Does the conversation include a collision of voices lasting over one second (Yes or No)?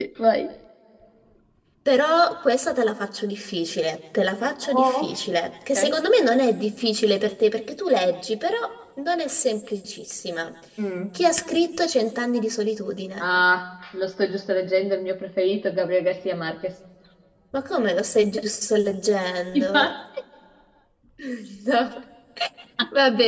No